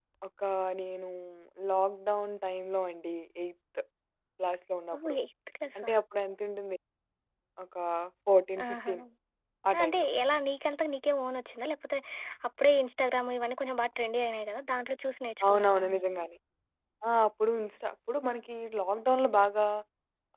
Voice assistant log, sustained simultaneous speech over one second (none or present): none